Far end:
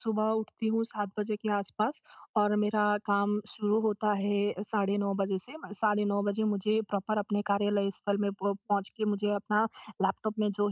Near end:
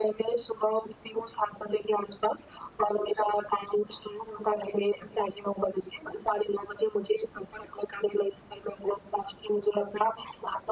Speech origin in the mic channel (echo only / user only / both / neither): echo only